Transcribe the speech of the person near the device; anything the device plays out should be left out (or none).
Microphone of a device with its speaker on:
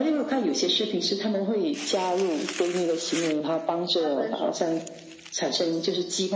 他分手。